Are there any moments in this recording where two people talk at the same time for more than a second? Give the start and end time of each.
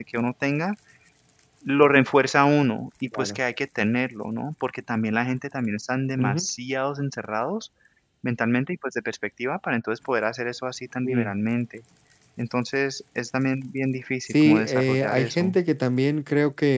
14.3-15.6

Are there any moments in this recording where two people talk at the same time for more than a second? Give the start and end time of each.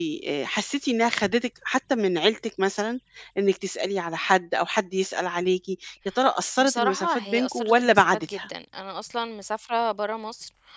6.6-8.4

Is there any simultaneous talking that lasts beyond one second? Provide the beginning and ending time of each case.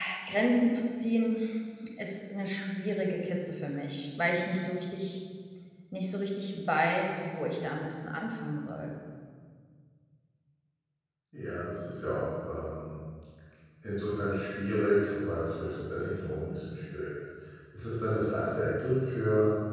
none

